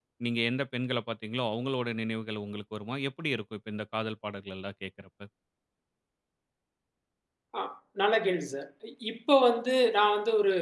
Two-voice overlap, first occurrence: none

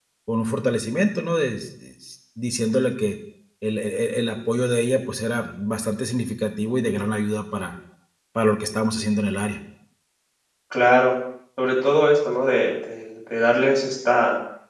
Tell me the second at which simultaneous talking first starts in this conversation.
none

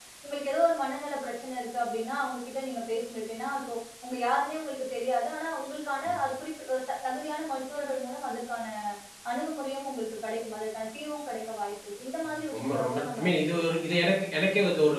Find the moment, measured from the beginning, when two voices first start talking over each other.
12.5 s

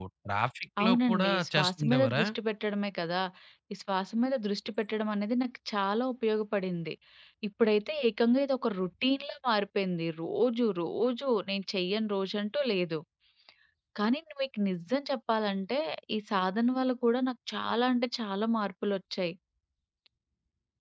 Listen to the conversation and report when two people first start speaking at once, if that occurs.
0.8 s

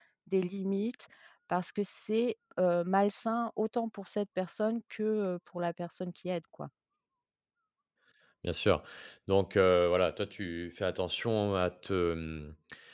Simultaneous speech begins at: none

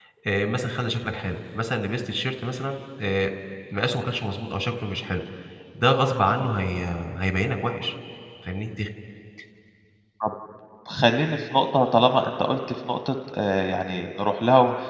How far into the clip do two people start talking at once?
none

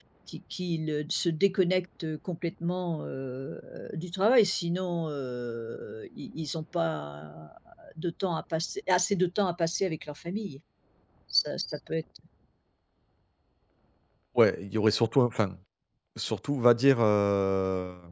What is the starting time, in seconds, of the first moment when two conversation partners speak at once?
none

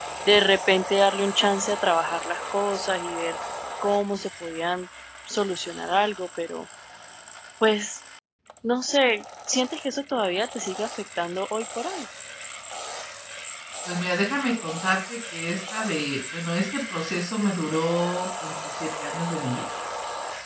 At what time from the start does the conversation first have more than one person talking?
none

